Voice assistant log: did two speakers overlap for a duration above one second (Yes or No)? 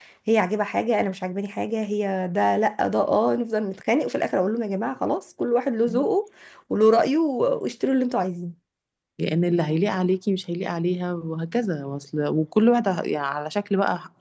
No